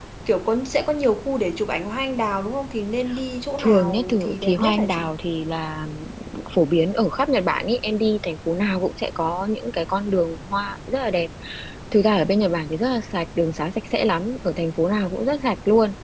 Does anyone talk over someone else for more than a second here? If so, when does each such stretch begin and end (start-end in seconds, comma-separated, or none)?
3.6-5.1